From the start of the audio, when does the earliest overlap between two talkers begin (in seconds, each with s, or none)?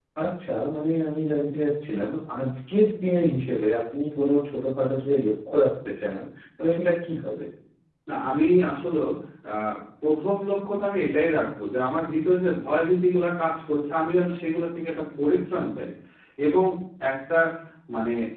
none